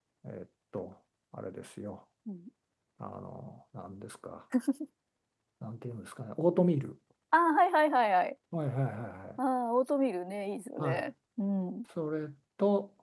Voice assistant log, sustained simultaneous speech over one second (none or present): none